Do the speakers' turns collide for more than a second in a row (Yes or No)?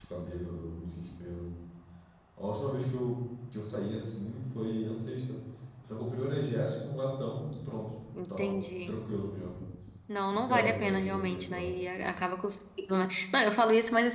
Yes